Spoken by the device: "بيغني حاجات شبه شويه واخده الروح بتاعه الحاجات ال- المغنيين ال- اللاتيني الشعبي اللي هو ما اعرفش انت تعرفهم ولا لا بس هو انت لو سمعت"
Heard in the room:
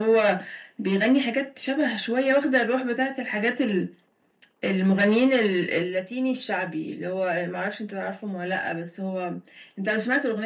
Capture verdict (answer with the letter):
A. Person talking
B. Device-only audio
B